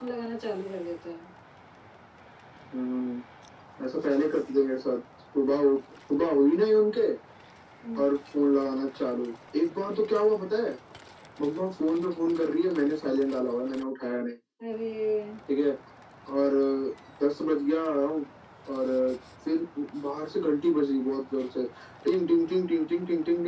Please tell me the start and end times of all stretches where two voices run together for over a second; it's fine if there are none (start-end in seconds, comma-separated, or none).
none